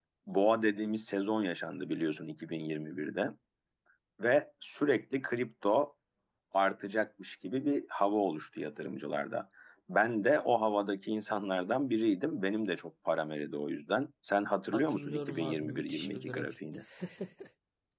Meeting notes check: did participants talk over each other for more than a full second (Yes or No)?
Yes